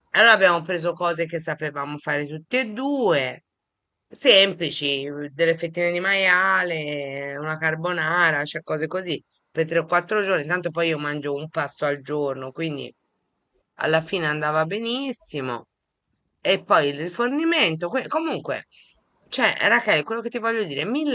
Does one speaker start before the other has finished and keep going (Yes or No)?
No